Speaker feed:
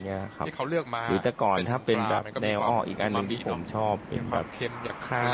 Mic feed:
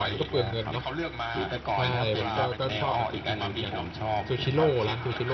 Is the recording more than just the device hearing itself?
Yes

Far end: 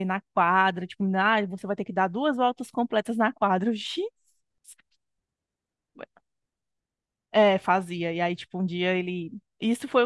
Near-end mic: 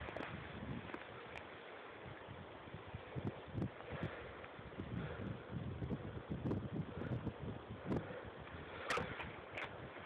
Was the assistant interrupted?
No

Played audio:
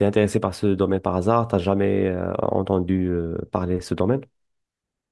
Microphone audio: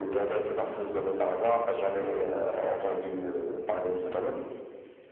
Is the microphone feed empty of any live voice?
Yes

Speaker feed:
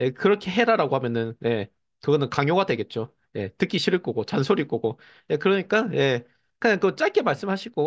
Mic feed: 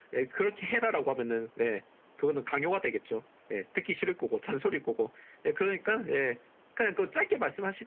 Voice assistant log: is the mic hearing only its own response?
Yes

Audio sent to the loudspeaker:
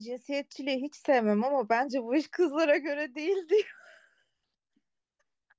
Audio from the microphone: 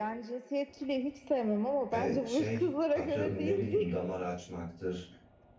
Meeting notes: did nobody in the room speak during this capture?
No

